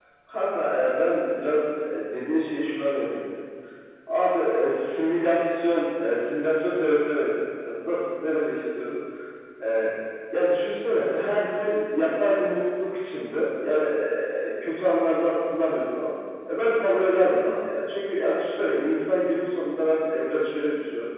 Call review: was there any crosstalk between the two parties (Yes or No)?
No